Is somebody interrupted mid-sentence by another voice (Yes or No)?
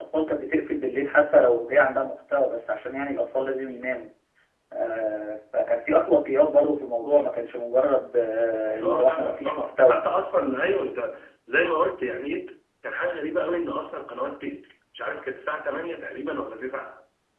Yes